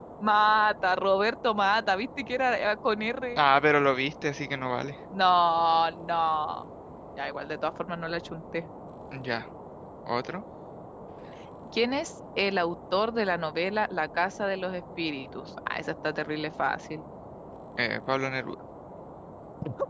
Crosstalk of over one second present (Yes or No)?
No